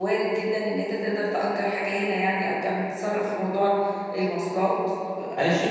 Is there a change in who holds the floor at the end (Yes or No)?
Yes